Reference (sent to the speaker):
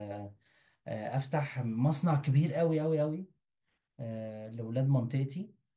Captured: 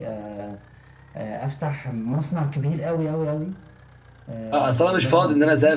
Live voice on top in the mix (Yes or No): Yes